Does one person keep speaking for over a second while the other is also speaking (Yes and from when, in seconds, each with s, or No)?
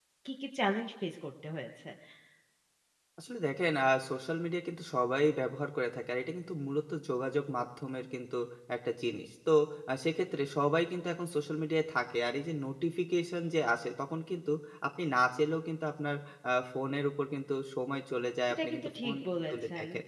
Yes, from 18.5 s